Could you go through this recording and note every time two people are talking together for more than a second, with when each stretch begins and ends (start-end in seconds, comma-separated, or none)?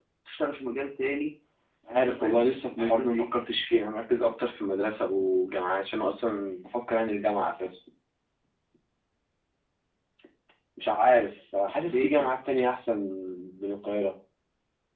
1.9-3.2